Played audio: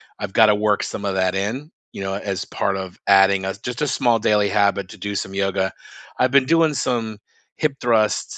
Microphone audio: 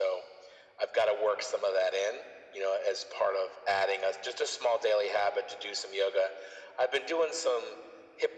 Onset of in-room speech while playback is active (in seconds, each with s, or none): none